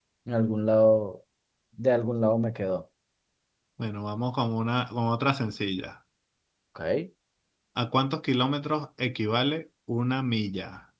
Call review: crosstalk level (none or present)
none